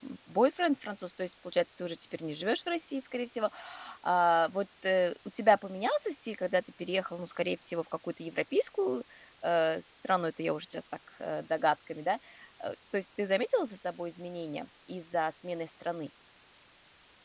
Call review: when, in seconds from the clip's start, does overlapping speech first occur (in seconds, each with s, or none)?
none